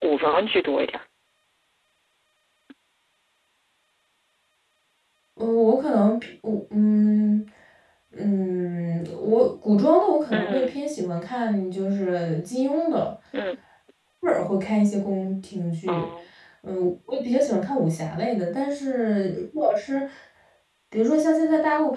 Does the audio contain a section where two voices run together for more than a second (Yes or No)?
No